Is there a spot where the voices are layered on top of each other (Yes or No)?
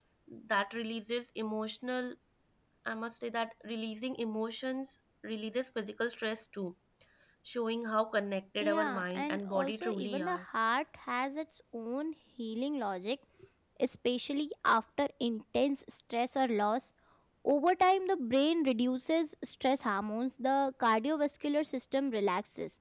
Yes